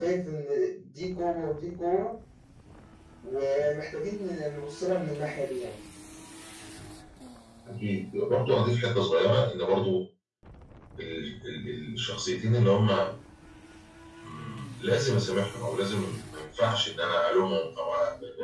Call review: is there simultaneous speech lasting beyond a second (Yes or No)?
No